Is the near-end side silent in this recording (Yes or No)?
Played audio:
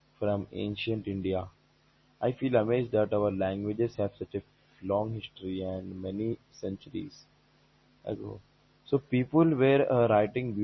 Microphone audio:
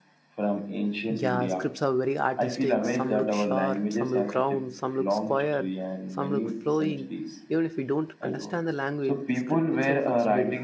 No